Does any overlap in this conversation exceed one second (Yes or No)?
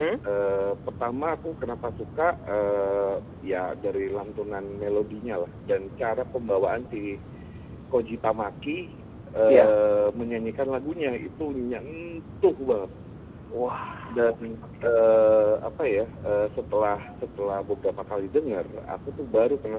No